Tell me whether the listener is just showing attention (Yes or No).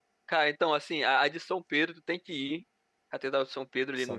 Yes